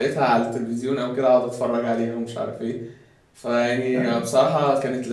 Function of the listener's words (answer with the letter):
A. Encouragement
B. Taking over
A